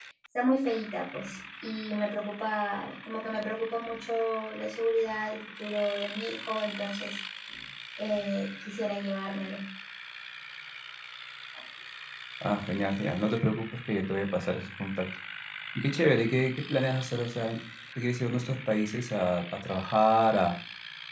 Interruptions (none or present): none